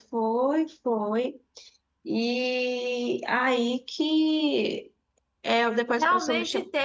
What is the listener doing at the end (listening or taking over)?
taking over